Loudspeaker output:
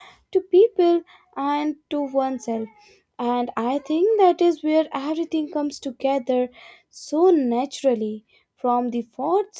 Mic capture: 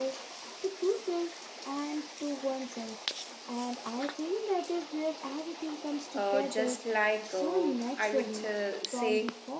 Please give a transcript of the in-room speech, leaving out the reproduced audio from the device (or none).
uh, just like uh, i would uh, say